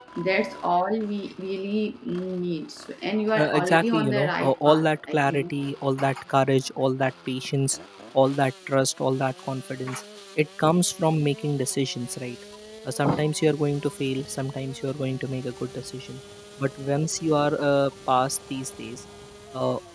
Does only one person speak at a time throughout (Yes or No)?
No